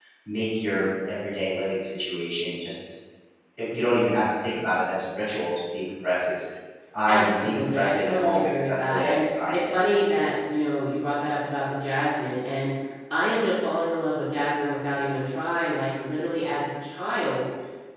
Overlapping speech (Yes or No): Yes